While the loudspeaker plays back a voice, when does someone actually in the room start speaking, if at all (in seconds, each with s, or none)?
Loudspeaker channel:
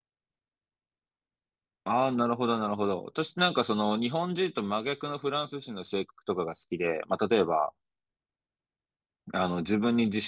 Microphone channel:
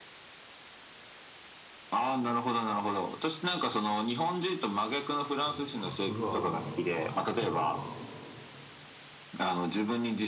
5.4 s